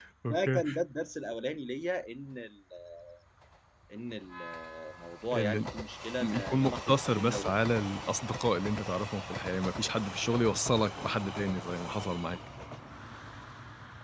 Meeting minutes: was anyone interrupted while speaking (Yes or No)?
Yes